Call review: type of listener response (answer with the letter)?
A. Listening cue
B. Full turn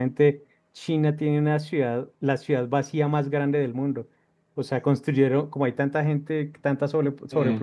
A